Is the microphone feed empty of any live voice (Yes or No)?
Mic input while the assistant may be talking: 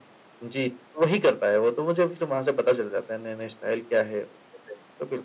Yes